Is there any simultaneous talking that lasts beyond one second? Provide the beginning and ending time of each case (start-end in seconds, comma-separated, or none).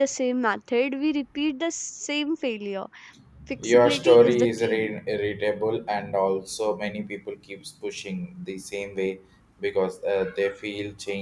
3.6-4.9